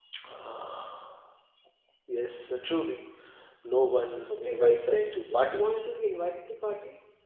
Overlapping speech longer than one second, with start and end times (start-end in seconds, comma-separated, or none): 4.3-5.8